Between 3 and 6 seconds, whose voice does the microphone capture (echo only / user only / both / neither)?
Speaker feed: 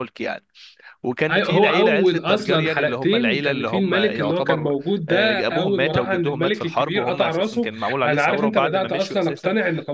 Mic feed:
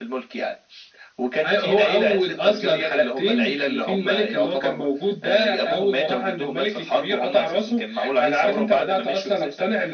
echo only